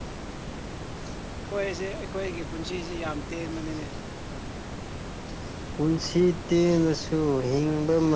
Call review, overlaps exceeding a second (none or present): none